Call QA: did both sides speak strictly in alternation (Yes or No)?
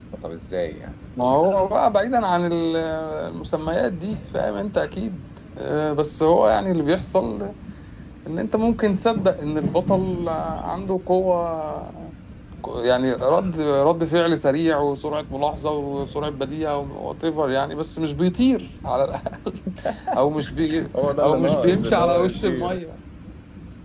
No